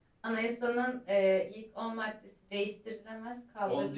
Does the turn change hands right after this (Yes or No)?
Yes